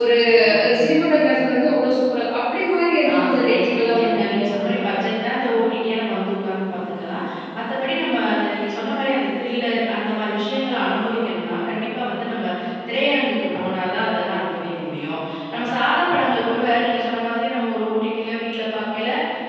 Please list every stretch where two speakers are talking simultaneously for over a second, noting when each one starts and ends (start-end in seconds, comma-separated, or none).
3.1-4.9